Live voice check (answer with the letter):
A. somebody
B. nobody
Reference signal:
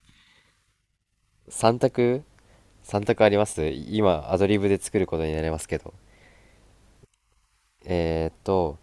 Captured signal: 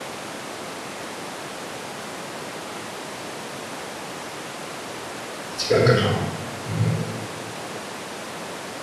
A